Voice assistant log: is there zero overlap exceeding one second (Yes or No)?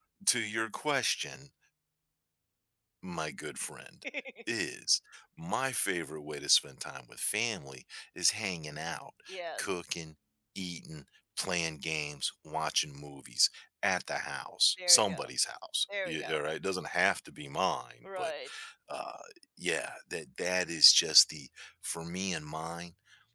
Yes